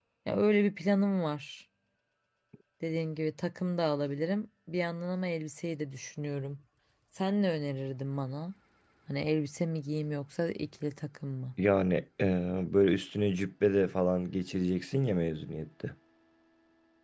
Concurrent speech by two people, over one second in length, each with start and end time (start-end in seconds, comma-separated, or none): none